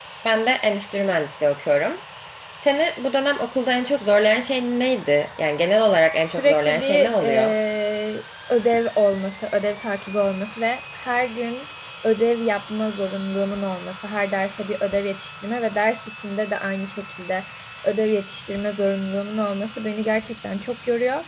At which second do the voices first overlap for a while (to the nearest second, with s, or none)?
6 s